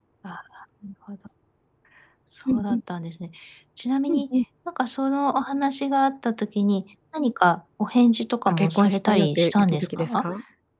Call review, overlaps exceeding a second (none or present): present